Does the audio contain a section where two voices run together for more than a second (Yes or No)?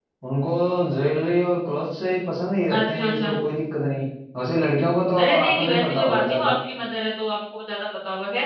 Yes